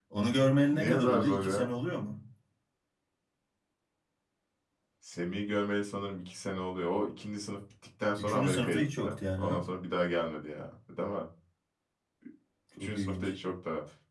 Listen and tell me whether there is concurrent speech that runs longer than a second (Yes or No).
Yes